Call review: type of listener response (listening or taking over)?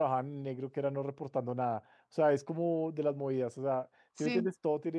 listening